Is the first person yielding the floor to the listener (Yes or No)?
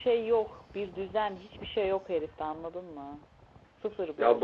Yes